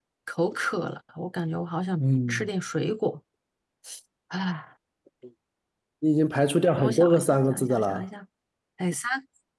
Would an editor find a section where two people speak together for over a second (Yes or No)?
Yes